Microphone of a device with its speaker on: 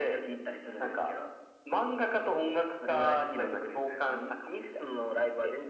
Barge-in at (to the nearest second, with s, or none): none